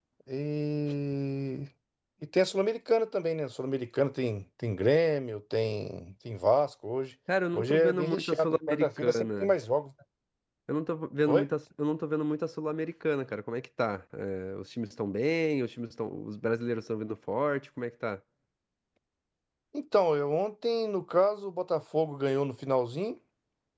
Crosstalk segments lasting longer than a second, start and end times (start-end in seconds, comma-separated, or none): 7.5-9.5